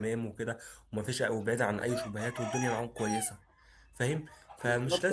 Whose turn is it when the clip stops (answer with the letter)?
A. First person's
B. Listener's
B